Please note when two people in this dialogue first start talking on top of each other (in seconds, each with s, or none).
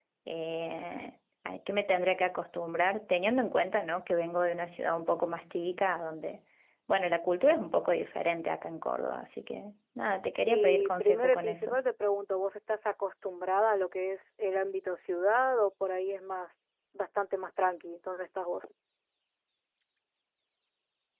10.5 s